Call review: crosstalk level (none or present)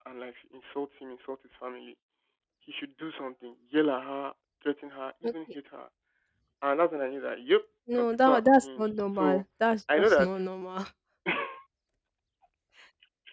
present